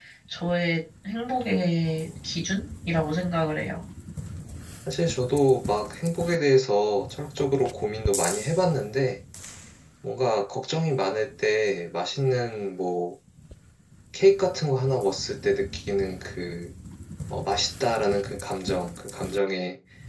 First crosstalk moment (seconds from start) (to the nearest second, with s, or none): none